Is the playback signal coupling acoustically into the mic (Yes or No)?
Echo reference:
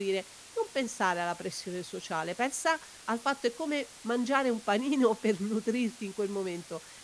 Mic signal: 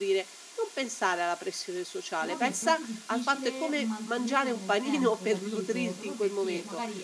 Yes